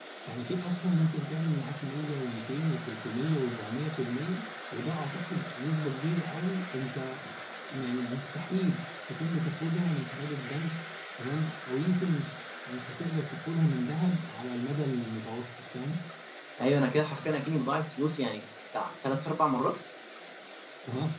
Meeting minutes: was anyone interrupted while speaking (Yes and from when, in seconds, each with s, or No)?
No